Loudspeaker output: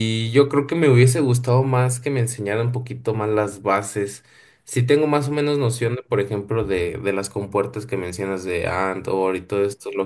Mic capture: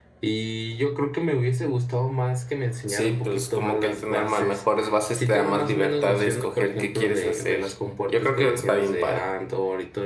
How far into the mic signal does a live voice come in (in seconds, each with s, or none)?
2.9 s